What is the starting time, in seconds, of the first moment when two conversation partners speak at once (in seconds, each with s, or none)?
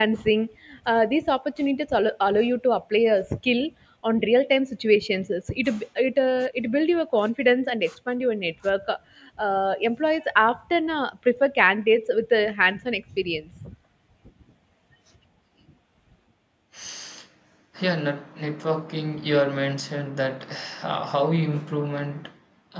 none